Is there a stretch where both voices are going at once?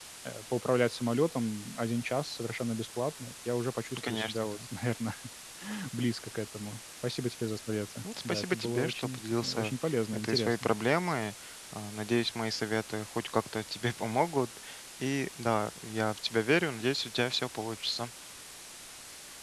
Yes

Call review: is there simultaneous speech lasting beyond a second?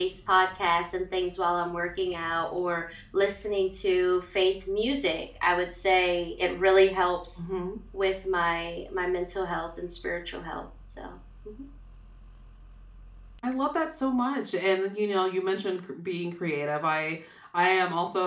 No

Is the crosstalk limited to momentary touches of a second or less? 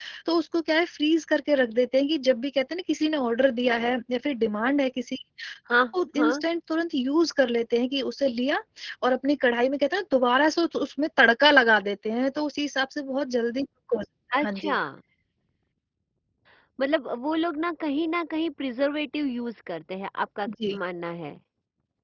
Yes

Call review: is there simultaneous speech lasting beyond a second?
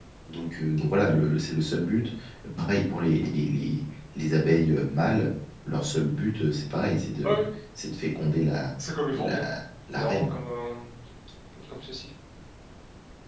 No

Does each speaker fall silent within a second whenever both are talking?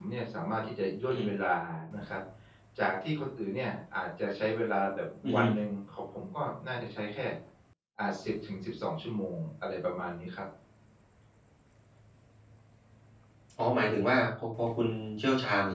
Yes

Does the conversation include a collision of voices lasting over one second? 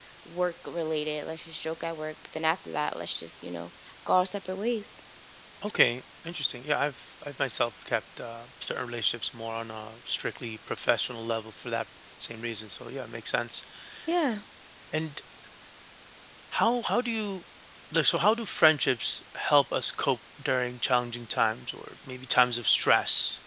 No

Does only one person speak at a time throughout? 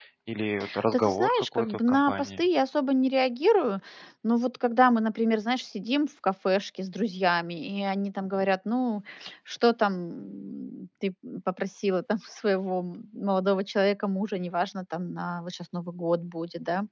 No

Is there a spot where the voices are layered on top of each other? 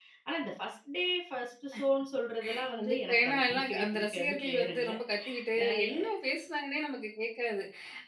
Yes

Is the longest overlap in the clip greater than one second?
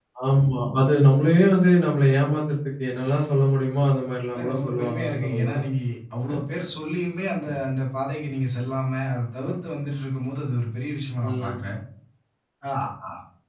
Yes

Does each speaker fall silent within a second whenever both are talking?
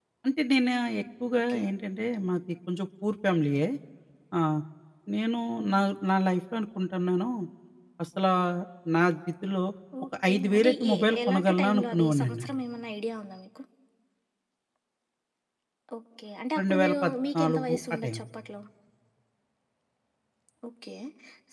No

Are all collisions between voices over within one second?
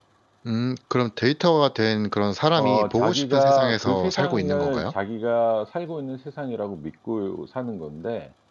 No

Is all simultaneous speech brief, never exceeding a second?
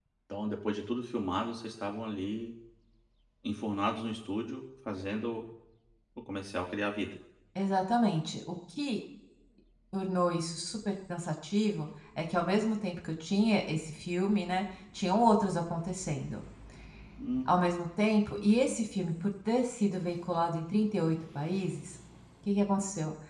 Yes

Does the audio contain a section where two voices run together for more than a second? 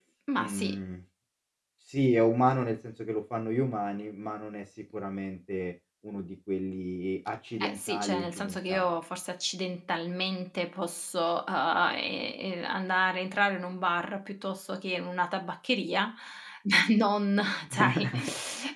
Yes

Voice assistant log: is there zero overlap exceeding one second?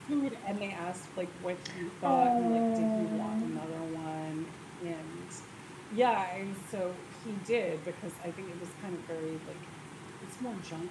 No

